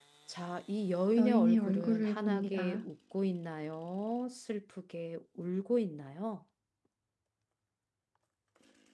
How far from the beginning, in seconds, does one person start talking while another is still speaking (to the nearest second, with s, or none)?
1 s